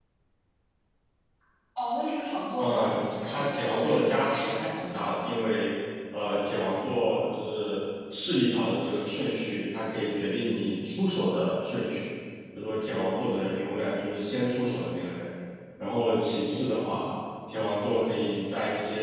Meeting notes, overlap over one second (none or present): present